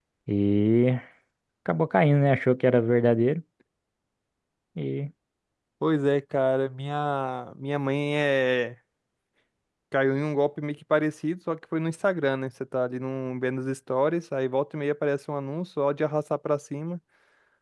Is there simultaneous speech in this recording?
No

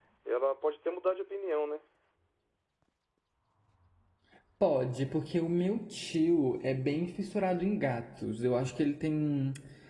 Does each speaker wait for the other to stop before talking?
Yes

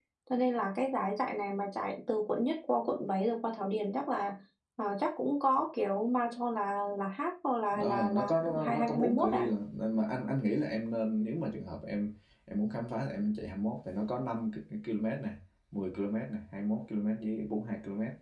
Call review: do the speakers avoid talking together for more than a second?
No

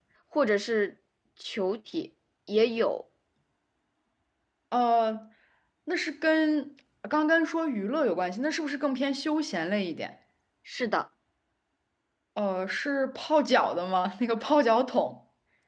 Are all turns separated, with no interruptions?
Yes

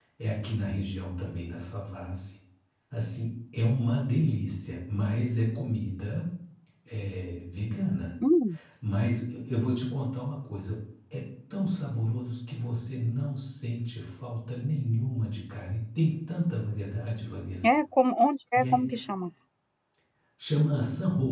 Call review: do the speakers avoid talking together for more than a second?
Yes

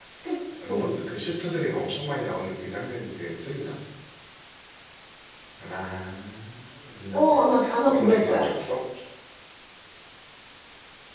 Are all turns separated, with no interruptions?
No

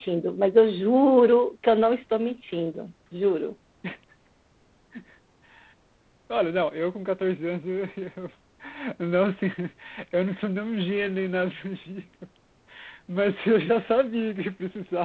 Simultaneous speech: No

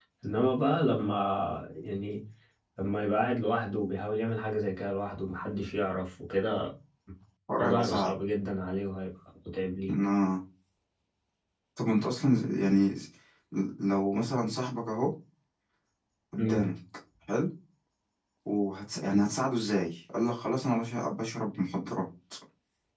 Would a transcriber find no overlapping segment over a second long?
Yes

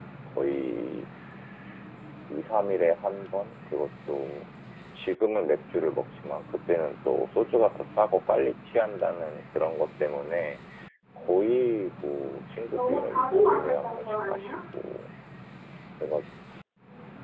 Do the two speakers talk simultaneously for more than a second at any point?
Yes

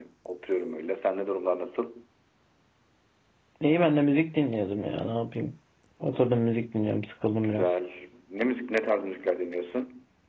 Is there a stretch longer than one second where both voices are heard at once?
No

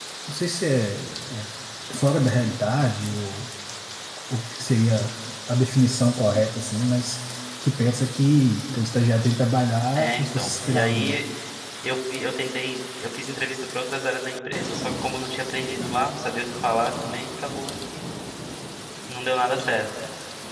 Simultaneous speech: Yes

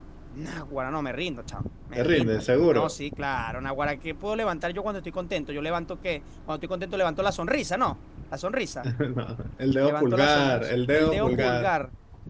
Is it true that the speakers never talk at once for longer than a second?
No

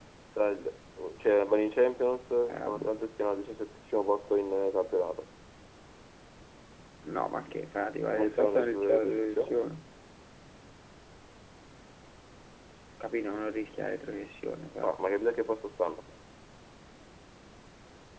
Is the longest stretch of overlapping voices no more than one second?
No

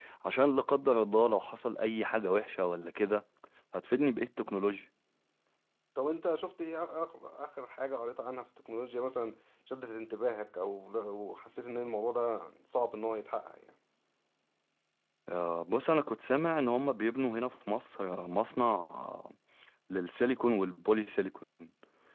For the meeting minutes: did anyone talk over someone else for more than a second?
No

